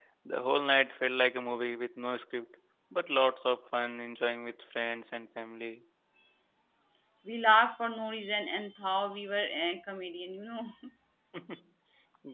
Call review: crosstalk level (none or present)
none